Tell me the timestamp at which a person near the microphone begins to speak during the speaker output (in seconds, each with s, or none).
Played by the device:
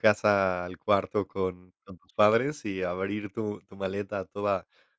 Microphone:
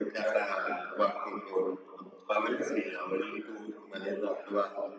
none